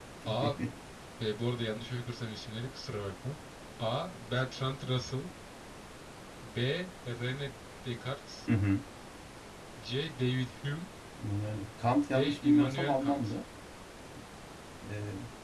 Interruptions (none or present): present